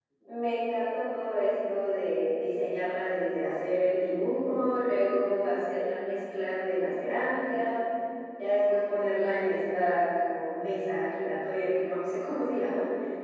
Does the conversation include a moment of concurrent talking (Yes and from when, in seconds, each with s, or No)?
No